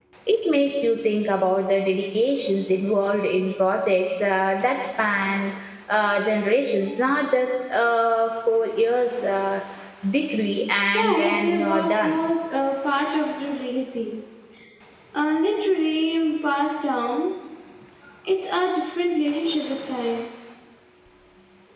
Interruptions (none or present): present